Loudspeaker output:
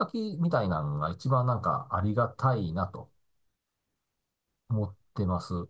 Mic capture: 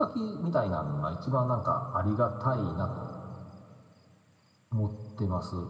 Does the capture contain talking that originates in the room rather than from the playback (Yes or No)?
No